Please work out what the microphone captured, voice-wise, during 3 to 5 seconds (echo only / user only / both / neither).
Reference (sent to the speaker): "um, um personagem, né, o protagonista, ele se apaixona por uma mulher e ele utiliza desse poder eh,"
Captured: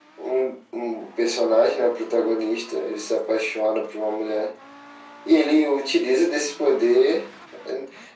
echo only